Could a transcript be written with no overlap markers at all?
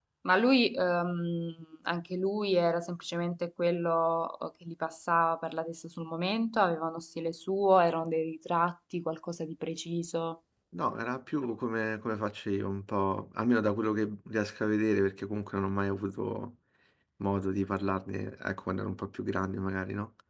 Yes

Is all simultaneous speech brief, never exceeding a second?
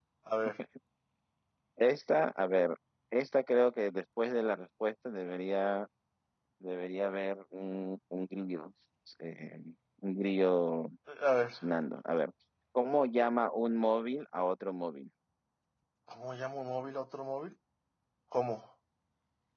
Yes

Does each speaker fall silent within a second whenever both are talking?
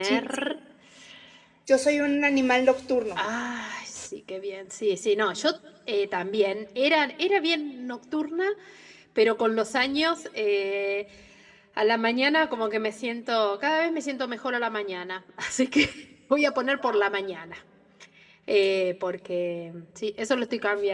Yes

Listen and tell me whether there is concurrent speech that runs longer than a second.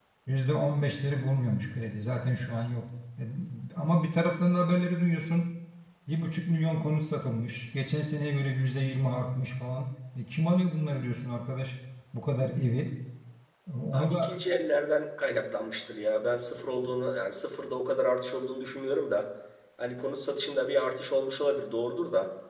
No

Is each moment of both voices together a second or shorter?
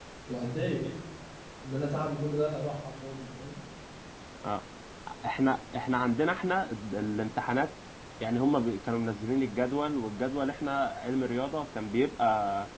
Yes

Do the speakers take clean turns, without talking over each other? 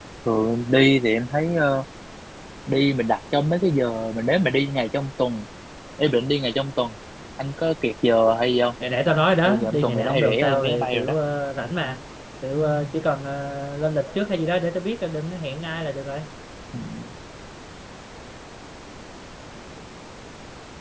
No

